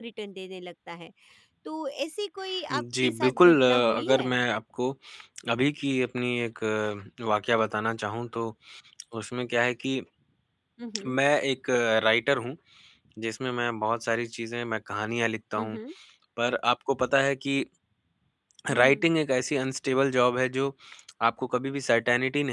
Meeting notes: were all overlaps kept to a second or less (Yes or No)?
No